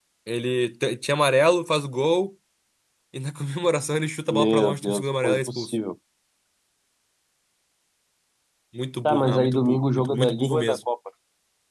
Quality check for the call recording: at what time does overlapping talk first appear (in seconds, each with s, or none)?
4.3 s